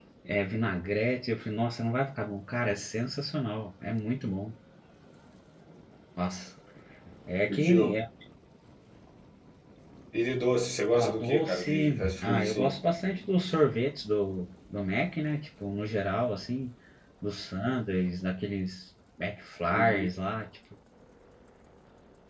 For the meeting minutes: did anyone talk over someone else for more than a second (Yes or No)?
Yes